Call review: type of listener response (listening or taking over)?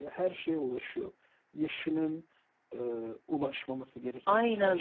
taking over